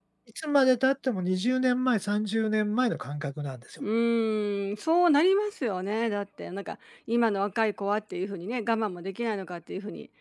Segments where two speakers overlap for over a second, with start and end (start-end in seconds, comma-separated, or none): none